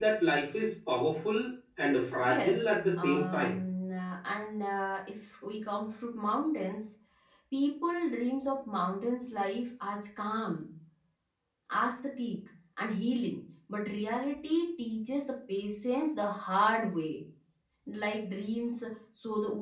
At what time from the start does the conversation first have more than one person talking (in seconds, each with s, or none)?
2.2 s